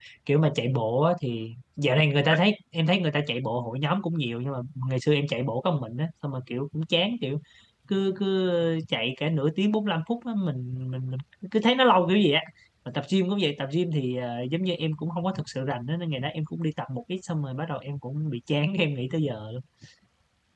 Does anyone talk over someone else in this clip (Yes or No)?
No